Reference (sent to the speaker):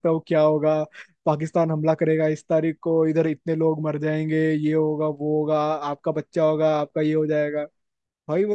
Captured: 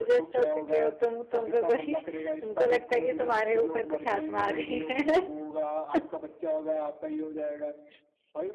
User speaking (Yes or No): Yes